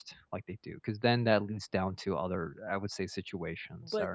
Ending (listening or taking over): taking over